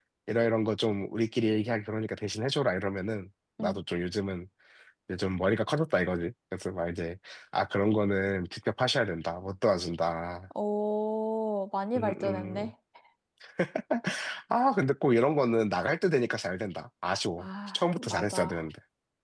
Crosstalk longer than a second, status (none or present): present